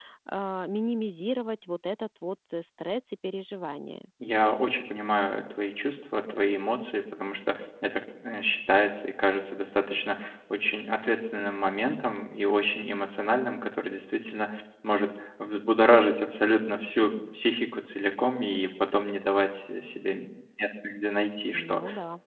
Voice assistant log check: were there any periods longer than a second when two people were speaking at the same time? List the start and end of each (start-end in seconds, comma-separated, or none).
none